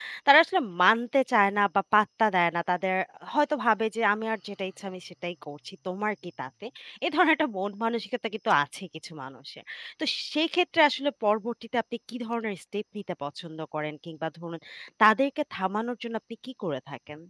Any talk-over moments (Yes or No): No